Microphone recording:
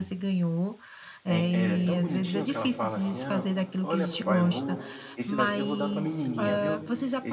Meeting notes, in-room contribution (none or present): present